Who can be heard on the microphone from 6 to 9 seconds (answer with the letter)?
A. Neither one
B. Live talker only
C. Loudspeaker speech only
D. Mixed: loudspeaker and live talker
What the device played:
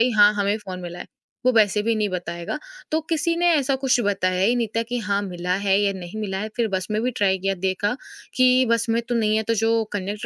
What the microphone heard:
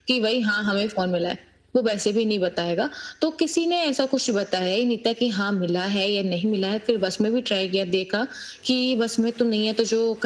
C